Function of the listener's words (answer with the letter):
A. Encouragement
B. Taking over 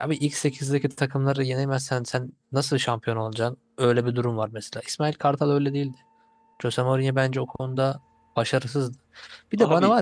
A